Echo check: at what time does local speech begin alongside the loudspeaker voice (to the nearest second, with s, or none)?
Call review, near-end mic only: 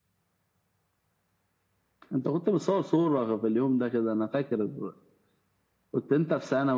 none